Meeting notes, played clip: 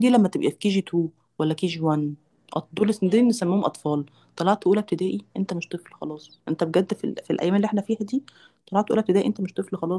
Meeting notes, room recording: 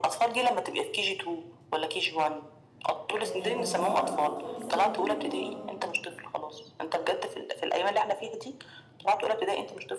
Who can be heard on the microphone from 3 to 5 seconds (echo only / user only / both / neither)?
both